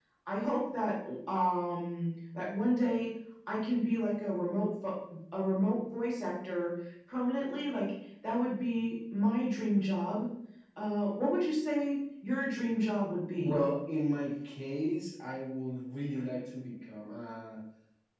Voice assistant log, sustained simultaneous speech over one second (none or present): none